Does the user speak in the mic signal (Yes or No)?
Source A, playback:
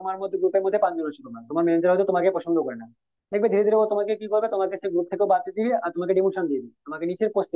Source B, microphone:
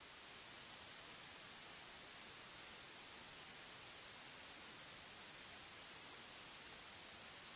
No